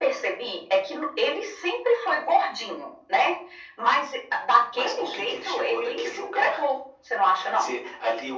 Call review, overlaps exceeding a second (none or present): present